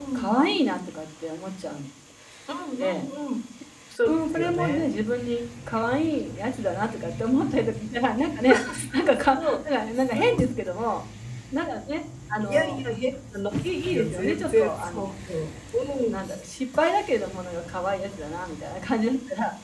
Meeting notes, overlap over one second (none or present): present